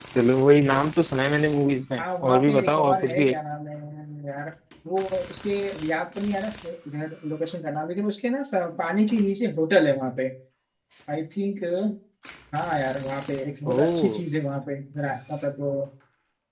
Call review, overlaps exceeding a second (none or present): present